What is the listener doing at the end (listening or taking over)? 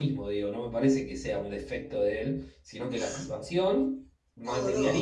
listening